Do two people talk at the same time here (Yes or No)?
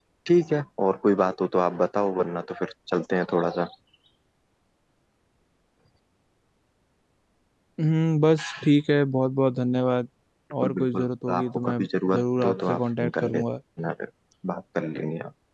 Yes